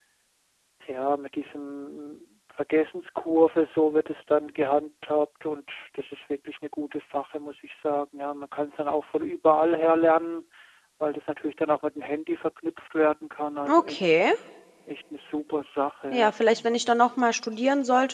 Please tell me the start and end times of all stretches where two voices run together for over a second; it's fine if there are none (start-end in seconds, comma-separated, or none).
none